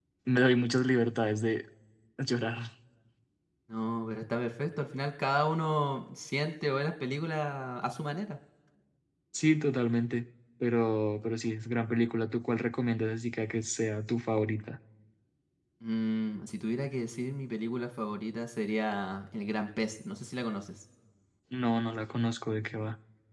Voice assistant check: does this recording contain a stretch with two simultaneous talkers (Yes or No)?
No